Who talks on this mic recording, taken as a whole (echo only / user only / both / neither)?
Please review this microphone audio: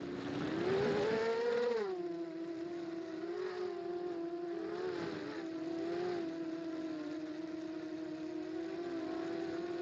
neither